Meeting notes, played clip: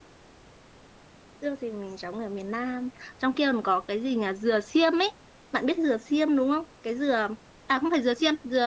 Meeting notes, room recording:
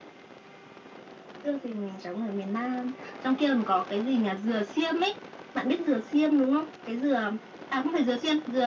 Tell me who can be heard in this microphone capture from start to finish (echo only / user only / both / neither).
echo only